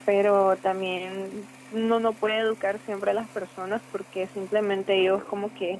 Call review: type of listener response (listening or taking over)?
listening